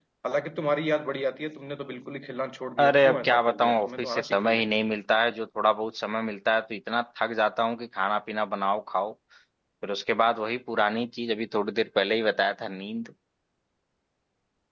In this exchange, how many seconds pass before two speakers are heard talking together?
3 s

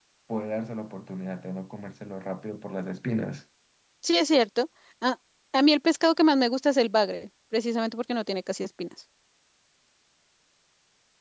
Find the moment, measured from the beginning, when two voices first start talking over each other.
none

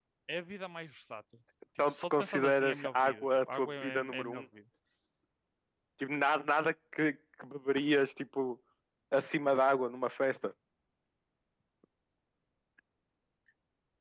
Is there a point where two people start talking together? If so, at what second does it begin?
2 s

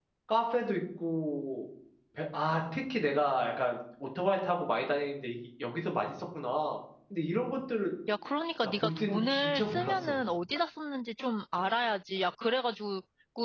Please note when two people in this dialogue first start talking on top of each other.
9 s

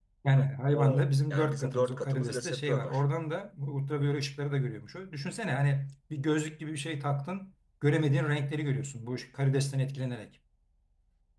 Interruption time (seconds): 1 s

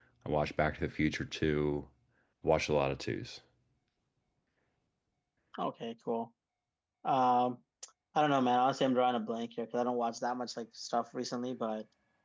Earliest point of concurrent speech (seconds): none

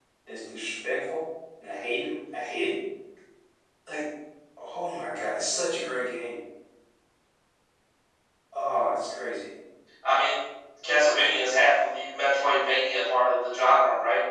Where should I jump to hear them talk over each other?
none

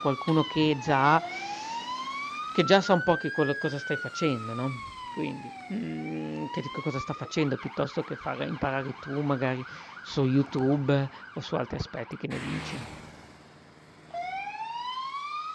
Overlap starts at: none

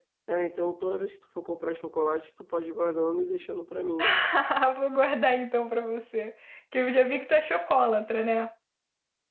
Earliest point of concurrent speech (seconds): none

